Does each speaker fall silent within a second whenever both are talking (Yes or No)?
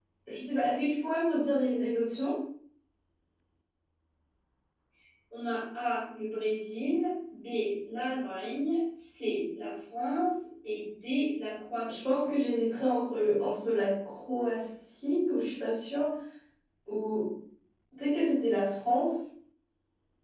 Yes